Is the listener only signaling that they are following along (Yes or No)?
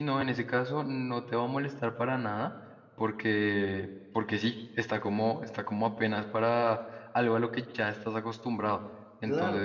No